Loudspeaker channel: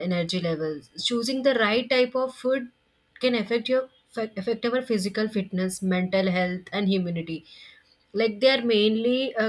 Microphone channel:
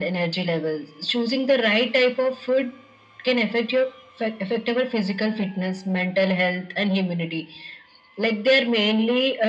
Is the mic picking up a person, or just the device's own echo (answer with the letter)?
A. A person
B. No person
B